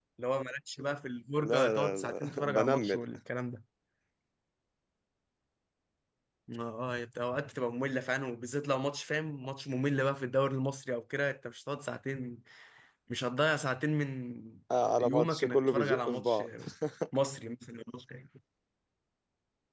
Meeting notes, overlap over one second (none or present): present